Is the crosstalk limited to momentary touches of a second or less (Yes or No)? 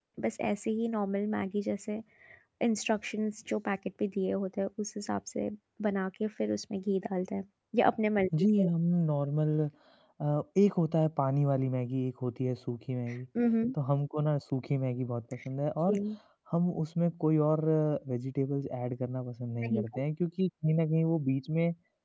Yes